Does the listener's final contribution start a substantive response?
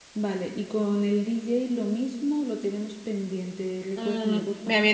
Yes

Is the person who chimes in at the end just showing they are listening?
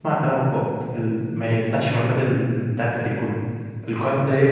Yes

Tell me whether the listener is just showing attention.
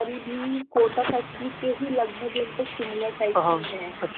No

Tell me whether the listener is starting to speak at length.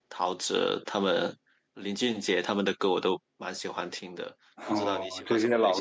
Yes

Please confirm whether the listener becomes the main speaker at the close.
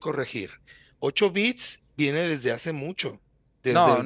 Yes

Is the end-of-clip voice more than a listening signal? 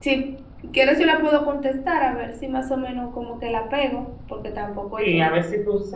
Yes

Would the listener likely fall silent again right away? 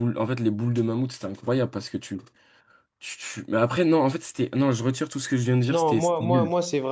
No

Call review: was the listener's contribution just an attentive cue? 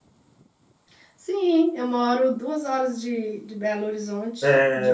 No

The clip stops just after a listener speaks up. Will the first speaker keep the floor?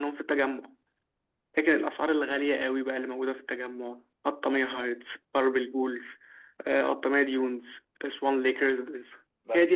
No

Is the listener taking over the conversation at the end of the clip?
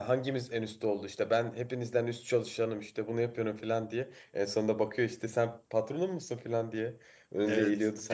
Yes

